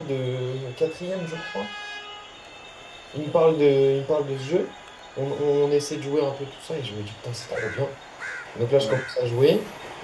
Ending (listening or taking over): listening